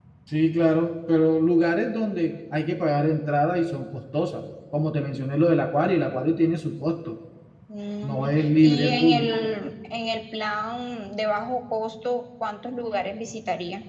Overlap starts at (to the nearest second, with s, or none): 8 s